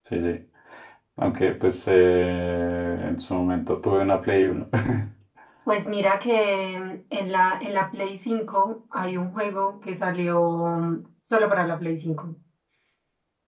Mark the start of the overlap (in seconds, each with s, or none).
none